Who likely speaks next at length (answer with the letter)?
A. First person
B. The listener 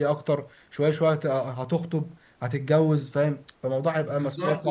B